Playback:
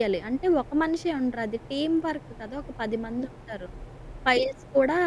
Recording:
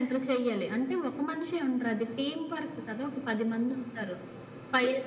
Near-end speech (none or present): none